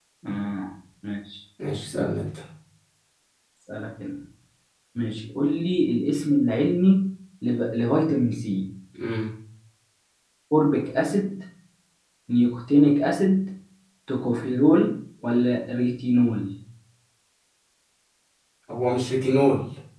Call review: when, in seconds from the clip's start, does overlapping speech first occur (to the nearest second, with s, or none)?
none